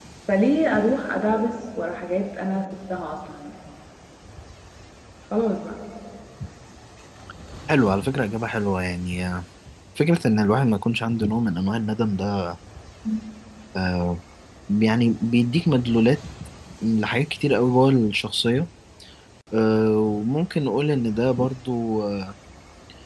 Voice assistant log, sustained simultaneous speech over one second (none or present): none